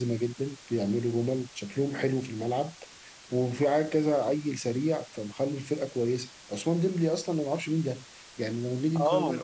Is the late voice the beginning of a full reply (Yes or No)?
No